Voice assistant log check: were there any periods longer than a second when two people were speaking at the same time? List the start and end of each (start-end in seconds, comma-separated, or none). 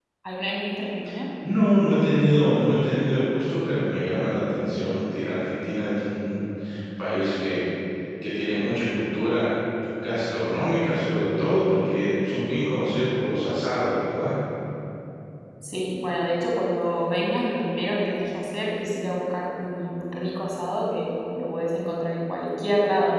none